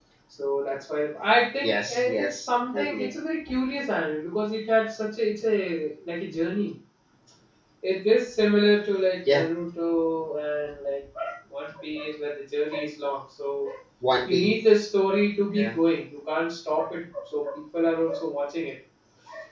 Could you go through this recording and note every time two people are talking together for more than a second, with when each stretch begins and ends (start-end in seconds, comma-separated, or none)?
1.6-3.1